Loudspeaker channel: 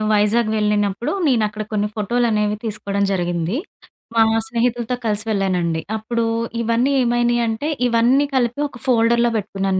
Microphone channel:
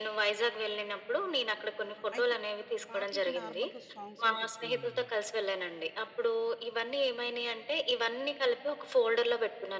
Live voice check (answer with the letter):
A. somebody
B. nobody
A